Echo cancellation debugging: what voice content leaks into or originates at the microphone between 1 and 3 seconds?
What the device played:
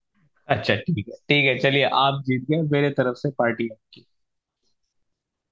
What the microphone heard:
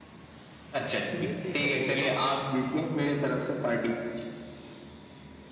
both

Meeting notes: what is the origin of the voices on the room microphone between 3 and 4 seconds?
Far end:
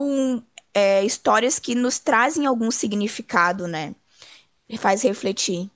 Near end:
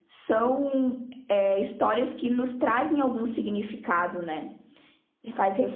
echo only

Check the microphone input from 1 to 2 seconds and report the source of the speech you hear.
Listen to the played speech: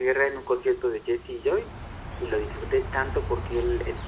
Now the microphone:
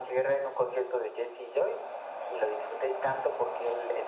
echo only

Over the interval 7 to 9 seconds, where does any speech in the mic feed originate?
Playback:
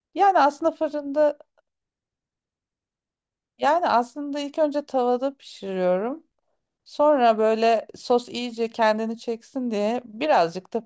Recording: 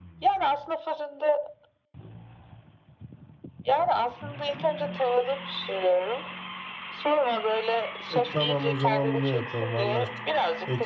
both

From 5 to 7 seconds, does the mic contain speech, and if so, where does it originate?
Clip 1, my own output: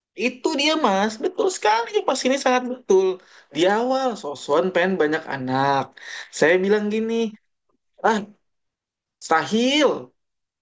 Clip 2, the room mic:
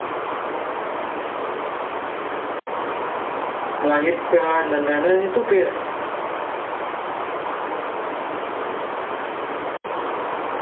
user only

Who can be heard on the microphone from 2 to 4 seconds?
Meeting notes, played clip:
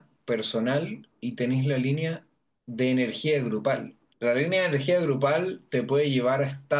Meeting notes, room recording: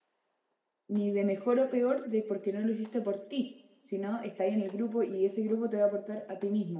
user only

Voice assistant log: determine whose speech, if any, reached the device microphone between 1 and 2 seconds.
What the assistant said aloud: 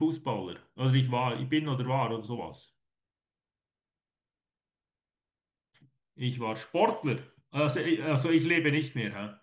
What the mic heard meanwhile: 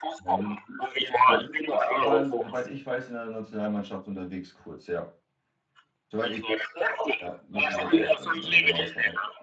both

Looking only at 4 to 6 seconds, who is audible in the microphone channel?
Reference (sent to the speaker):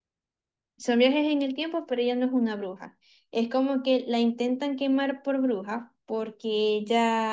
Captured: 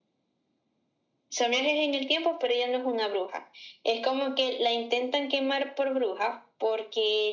echo only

